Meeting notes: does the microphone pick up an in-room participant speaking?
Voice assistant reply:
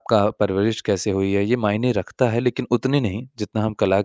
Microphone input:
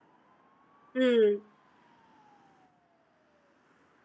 Yes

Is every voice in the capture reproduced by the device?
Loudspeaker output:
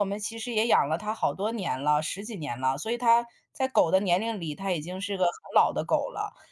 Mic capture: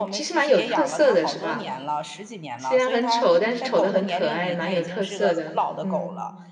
No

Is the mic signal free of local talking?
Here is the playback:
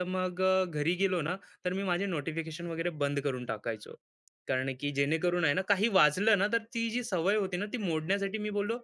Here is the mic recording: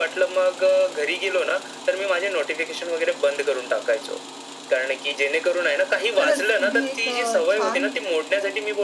No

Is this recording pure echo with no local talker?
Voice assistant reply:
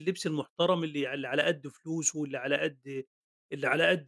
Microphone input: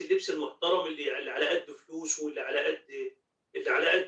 Yes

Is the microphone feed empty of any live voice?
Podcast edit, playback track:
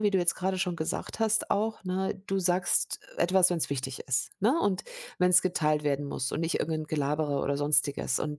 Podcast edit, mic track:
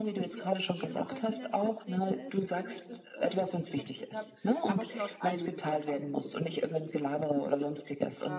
No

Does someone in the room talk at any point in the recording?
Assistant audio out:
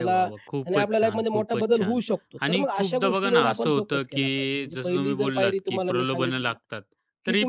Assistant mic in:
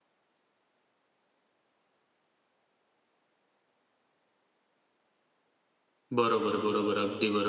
Yes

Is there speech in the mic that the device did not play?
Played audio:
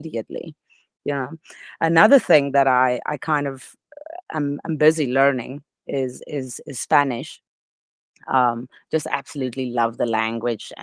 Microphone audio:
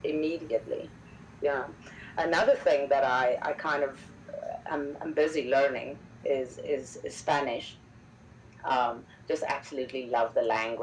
No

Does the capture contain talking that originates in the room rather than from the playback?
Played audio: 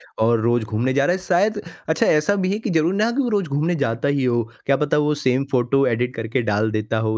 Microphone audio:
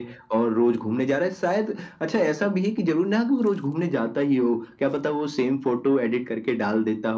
No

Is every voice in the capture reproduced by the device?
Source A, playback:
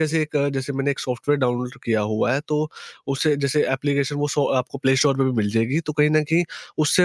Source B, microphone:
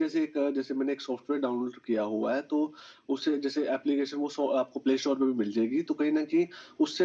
Yes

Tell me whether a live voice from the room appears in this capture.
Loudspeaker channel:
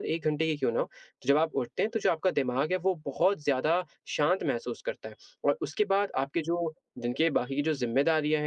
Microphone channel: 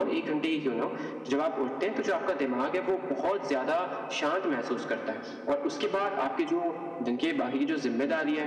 No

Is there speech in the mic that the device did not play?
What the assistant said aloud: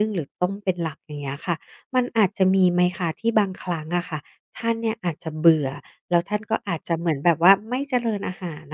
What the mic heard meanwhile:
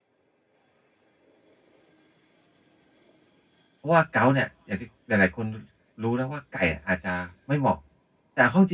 Yes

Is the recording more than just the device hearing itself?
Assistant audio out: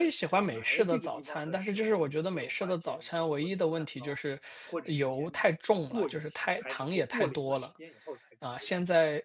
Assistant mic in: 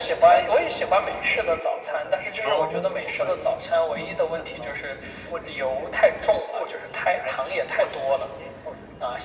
Yes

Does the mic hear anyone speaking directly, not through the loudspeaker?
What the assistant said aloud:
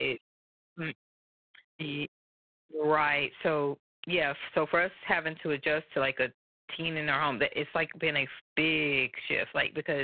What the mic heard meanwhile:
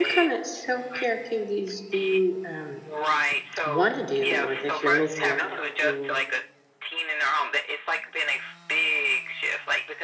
Yes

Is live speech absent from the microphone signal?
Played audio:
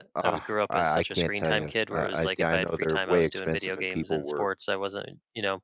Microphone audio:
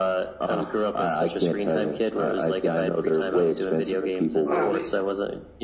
No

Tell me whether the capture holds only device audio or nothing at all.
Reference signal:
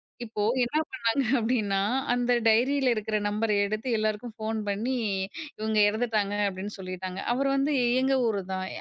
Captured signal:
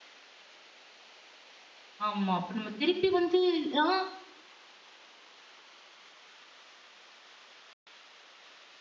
No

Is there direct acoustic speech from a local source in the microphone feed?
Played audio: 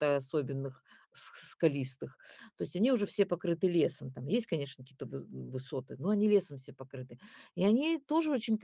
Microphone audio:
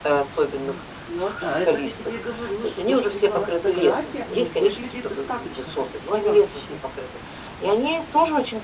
Yes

